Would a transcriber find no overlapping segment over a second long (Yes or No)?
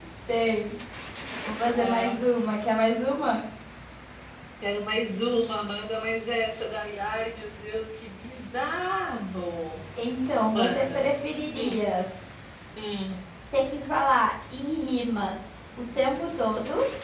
Yes